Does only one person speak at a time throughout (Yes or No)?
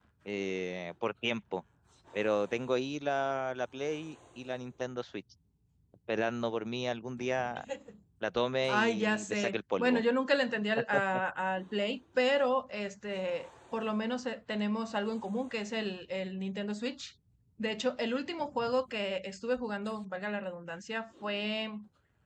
No